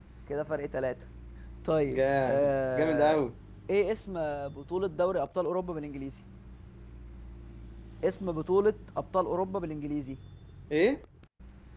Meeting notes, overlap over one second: present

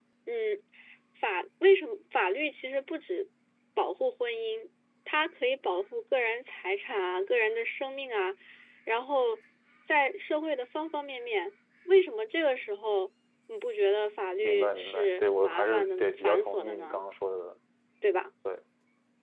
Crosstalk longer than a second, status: present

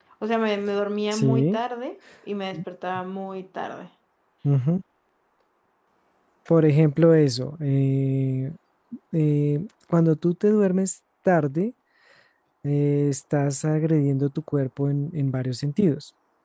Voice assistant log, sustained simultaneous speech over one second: none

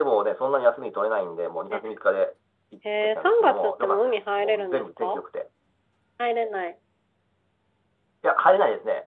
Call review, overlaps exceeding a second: present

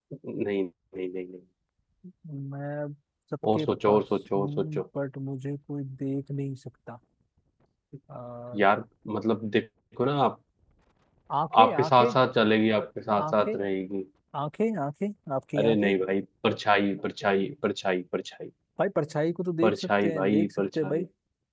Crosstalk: present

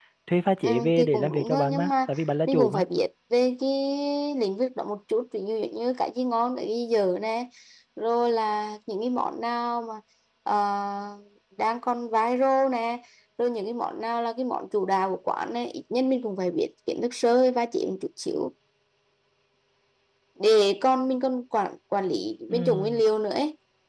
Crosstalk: present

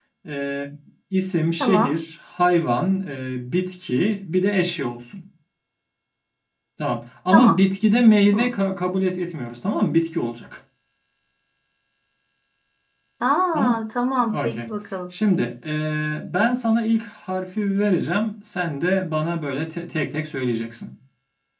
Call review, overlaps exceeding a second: none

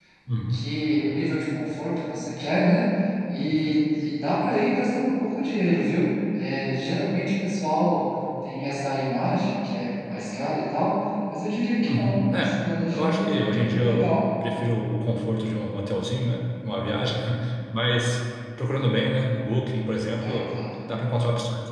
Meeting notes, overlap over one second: present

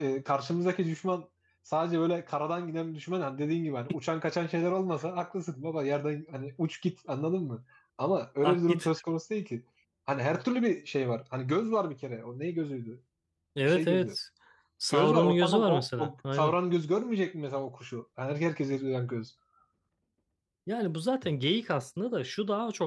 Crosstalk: present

